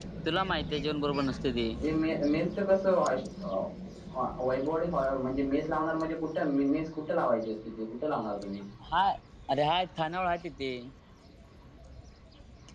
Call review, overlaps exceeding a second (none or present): none